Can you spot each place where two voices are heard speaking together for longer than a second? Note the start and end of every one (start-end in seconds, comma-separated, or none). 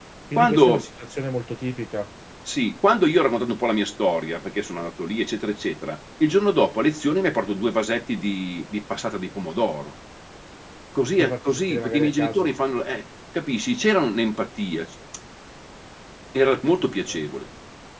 11.2-12.5